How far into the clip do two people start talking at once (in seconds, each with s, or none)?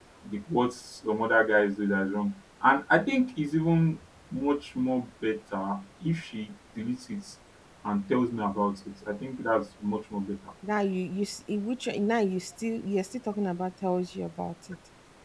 none